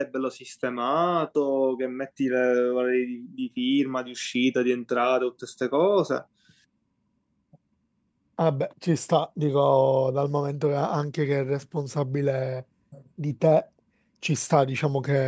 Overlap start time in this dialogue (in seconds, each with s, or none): none